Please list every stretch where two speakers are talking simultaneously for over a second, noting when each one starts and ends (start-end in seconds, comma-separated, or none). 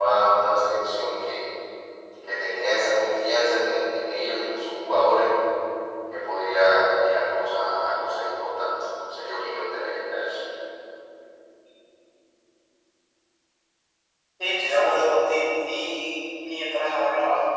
none